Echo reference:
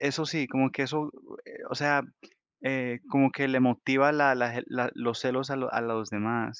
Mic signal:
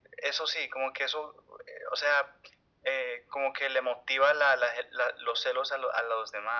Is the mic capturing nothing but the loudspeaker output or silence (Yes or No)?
Yes